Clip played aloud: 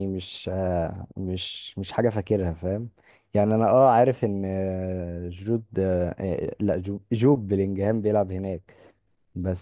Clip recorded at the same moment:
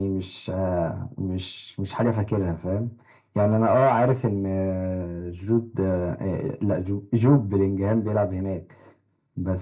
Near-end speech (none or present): none